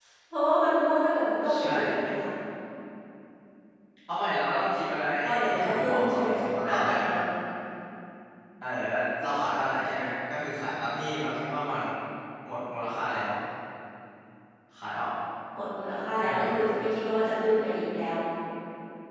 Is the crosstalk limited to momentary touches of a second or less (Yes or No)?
No